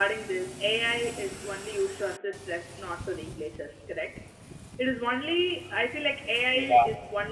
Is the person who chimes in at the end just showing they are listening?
Yes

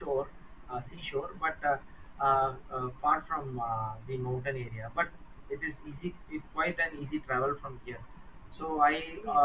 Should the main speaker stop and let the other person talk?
No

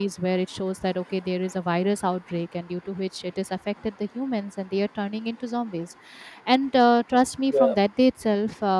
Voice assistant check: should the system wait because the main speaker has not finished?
Yes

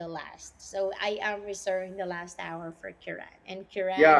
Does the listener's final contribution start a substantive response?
Yes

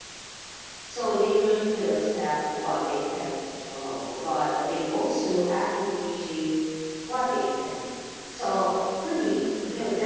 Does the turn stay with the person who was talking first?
Yes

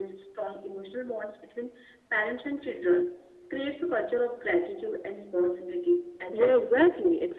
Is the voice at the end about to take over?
Yes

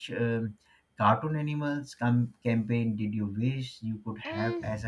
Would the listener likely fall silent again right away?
No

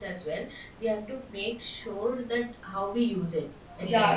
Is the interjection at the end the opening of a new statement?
Yes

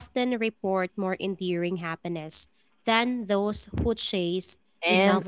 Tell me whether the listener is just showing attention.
No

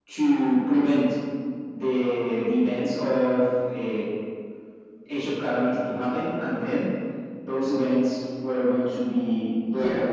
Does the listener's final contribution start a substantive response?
Yes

